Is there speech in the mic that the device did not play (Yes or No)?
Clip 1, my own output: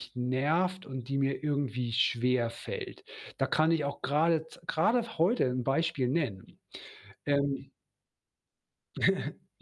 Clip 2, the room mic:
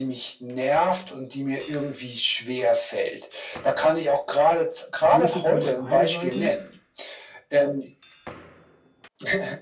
Yes